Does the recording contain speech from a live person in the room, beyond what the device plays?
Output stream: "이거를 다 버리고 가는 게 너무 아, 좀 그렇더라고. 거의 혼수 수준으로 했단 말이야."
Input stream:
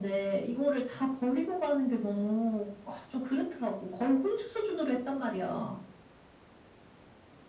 No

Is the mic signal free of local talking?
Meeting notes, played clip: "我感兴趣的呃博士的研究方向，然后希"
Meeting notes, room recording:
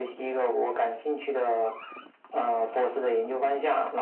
Yes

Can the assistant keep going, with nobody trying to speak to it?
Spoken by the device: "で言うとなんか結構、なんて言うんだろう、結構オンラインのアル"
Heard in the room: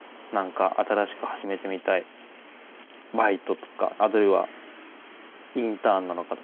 No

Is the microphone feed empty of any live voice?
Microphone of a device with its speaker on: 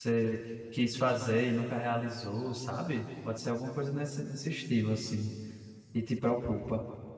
No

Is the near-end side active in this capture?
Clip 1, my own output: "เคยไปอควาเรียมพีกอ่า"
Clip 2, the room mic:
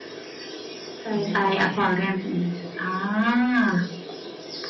Yes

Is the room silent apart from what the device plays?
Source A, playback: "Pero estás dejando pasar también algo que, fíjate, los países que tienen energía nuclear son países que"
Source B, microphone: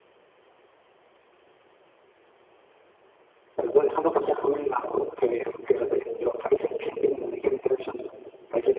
Yes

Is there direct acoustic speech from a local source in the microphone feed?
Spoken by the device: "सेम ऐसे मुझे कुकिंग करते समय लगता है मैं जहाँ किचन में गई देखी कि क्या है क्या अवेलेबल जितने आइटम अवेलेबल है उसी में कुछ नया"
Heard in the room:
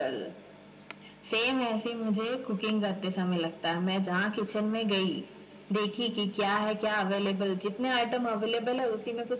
No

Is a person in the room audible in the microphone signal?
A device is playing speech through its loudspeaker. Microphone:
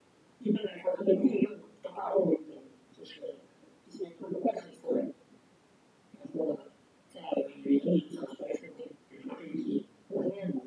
No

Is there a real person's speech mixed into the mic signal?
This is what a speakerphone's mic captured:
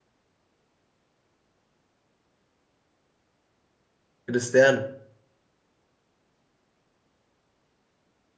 Yes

